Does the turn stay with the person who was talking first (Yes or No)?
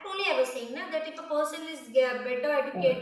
Yes